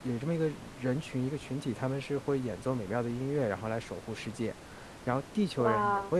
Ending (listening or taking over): listening